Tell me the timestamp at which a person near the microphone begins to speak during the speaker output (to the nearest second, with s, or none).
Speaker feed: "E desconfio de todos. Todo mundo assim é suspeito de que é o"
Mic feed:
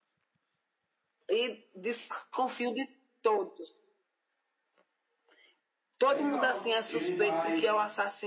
6 s